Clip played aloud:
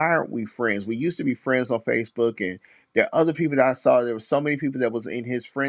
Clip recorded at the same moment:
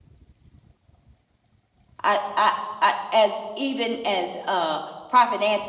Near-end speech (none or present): present